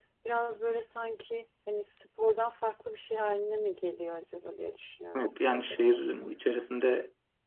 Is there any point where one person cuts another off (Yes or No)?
Yes